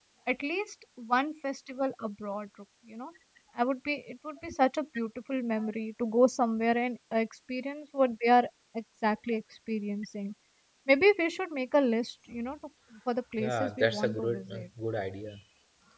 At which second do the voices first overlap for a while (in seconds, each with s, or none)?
13.4 s